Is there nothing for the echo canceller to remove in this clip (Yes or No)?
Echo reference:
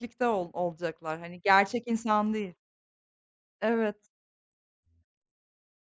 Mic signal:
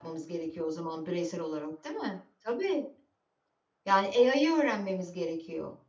Yes